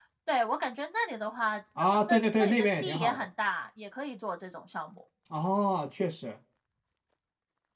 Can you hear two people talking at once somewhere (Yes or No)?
Yes